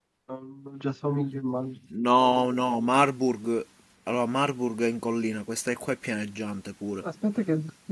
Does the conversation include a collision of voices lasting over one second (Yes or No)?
No